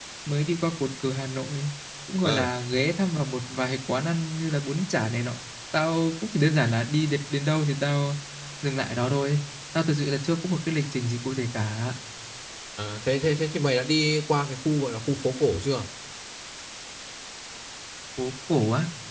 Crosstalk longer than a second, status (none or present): none